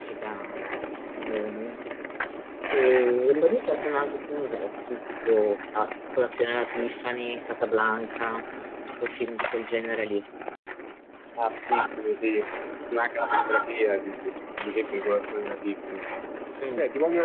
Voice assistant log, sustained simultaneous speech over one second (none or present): none